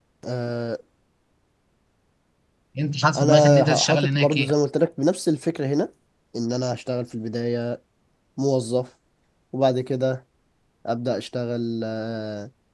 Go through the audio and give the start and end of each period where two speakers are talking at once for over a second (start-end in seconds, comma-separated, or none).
3.1-4.5